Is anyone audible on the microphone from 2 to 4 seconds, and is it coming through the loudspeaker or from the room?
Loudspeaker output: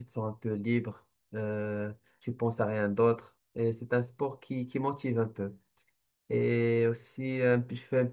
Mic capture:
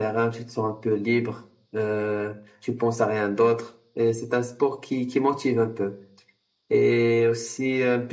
echo only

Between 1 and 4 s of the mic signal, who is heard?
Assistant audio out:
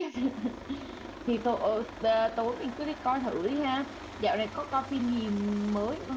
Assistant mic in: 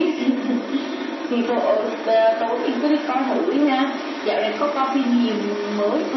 echo only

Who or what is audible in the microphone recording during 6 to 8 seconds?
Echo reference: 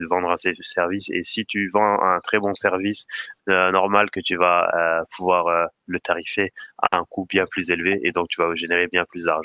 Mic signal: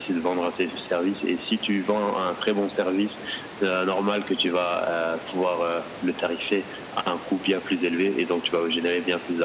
echo only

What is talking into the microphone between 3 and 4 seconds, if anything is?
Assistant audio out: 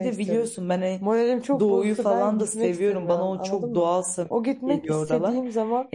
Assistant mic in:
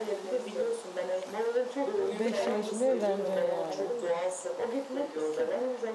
both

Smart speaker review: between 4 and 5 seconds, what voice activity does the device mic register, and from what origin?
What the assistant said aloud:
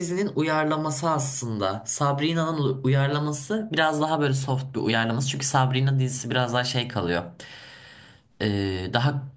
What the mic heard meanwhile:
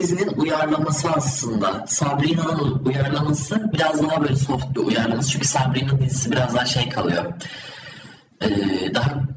echo only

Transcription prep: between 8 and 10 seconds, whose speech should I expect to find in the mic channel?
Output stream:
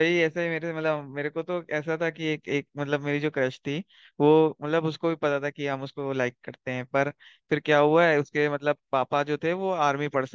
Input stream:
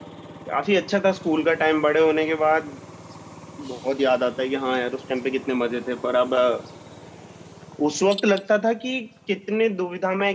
user only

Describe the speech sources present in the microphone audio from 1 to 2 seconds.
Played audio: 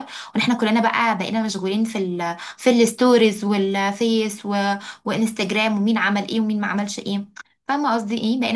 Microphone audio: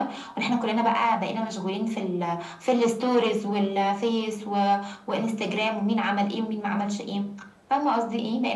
echo only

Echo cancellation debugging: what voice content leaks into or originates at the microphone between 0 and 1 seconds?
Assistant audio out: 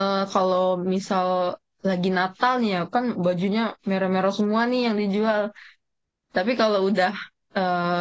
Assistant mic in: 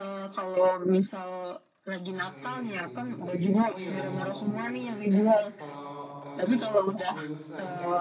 echo only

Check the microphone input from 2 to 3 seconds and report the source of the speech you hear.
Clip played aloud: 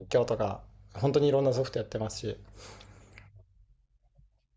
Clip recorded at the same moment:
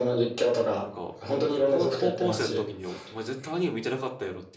both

